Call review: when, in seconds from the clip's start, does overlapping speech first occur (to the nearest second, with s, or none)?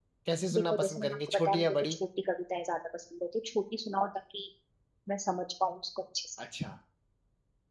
1 s